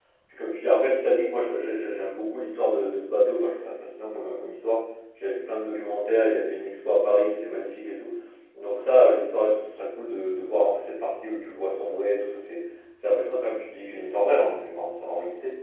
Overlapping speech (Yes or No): No